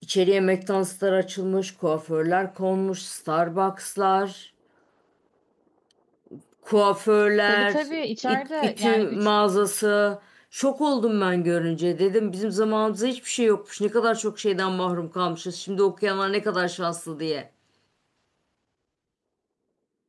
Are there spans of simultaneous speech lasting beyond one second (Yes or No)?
Yes